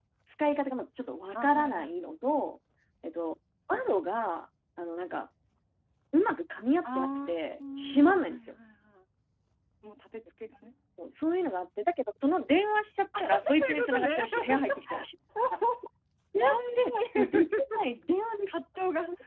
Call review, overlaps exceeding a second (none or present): present